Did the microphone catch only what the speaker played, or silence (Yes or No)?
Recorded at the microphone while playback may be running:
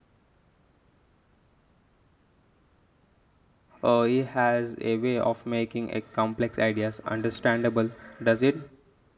No